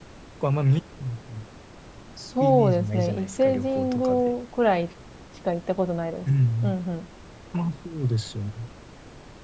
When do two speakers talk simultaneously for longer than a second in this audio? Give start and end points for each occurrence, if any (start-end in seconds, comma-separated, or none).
2.4-4.3